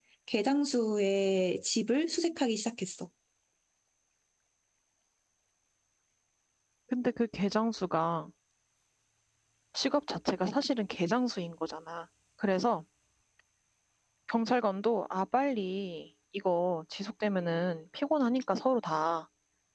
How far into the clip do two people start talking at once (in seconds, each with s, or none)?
none